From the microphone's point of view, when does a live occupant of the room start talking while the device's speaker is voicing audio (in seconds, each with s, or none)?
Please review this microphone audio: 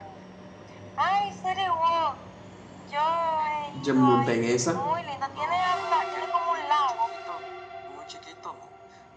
3.7 s